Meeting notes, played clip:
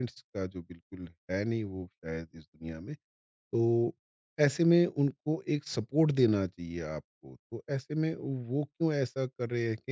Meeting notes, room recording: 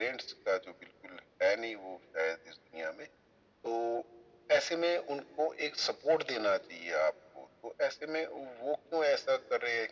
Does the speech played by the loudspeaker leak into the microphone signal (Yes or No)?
Yes